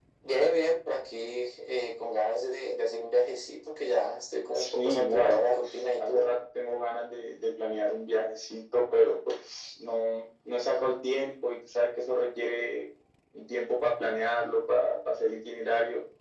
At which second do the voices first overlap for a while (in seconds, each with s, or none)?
4.5 s